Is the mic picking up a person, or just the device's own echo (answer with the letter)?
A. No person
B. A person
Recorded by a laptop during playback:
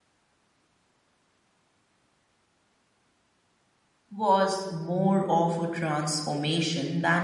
B